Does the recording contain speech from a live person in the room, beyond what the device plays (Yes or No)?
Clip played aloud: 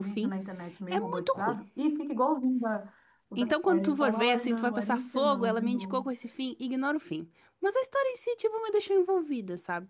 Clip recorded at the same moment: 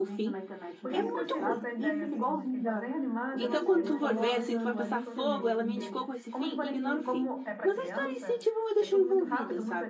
Yes